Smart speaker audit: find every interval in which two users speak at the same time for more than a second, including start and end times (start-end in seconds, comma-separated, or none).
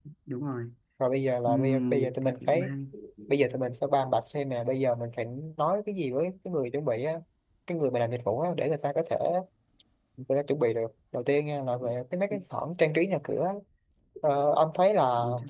1.4-2.7